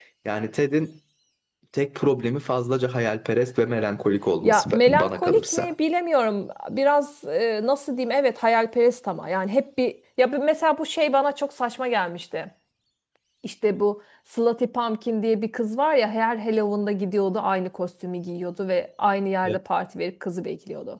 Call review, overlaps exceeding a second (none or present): present